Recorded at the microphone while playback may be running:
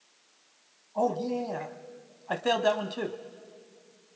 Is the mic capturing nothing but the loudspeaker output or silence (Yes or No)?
No